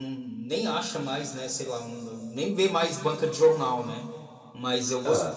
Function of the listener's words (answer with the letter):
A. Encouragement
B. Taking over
A